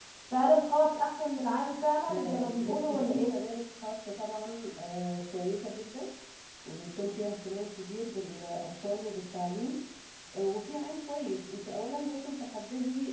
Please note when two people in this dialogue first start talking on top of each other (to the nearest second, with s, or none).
2 s